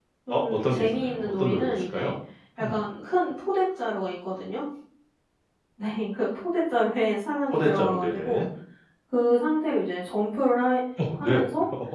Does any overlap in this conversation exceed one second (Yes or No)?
Yes